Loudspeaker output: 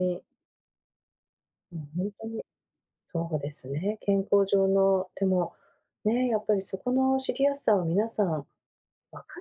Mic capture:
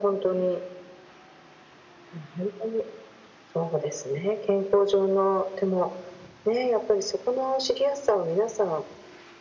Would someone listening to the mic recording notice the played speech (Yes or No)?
Yes